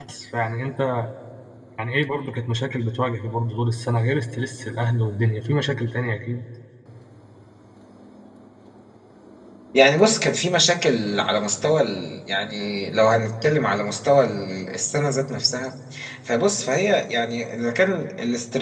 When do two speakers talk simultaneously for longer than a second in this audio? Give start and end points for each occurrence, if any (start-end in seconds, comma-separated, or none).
none